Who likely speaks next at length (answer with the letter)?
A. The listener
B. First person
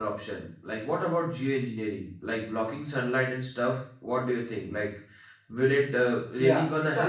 A